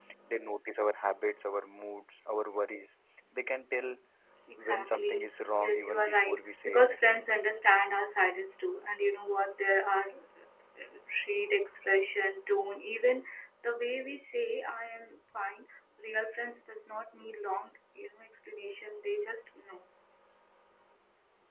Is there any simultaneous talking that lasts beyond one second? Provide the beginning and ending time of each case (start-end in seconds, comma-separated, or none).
4.6-7.2